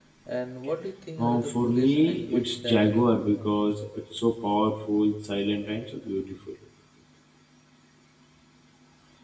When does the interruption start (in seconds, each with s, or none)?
1.2 s